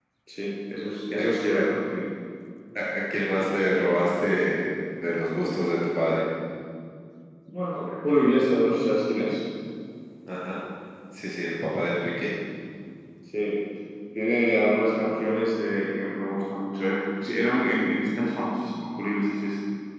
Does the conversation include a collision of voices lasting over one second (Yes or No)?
No